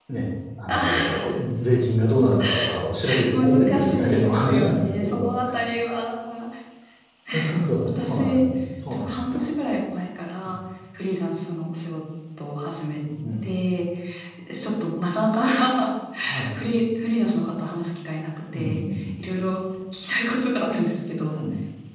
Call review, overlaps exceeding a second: present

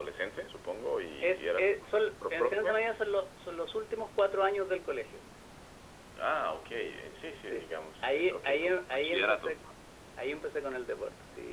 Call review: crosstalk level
present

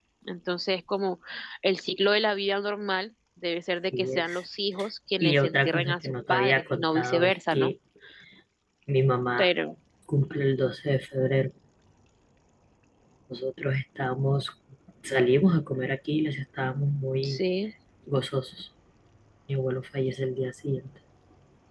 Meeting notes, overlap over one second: present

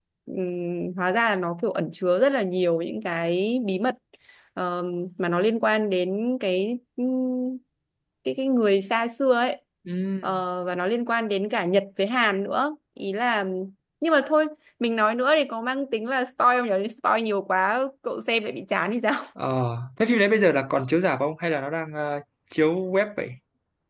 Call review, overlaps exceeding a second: none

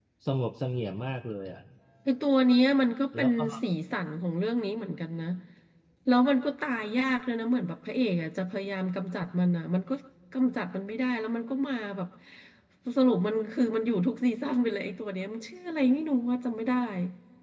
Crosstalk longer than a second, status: none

